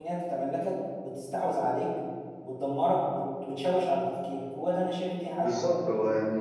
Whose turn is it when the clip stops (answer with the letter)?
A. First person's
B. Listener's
B